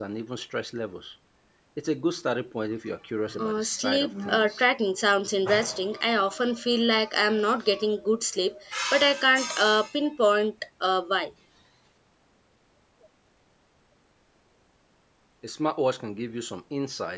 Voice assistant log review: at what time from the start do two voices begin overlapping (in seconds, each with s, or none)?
3.3 s